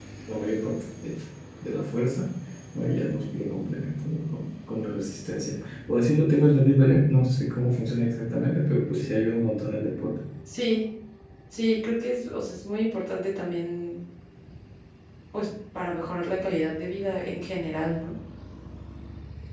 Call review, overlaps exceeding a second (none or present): none